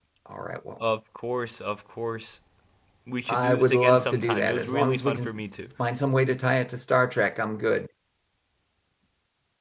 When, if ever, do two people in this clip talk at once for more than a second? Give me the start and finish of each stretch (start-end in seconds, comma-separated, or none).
3.3-5.3